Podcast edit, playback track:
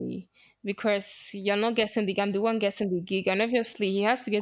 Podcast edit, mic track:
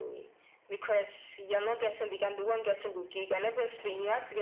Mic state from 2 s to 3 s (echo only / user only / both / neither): echo only